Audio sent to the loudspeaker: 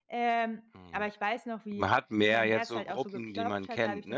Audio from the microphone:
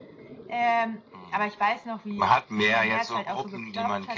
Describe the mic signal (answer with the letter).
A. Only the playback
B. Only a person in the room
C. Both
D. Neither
A